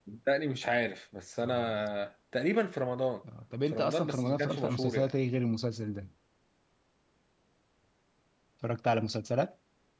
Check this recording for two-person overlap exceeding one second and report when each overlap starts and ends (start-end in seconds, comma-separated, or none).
3.7-5.1